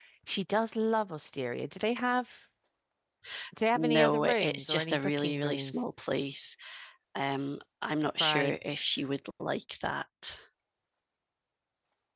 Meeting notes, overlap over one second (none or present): present